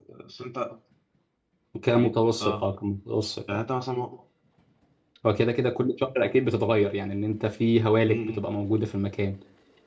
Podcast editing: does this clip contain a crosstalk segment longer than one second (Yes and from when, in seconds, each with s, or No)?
No